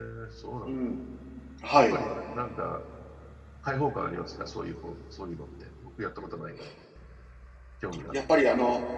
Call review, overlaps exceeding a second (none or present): none